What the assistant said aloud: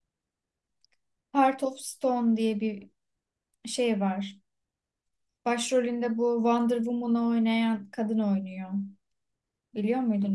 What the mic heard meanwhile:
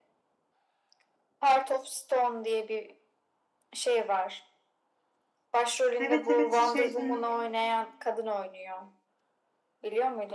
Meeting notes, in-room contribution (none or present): present